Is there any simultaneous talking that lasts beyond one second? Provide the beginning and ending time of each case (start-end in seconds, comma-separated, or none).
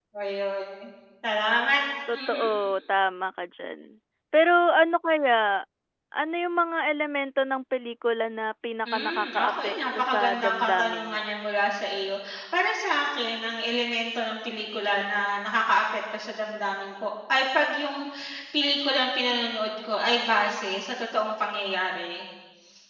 8.9-11.2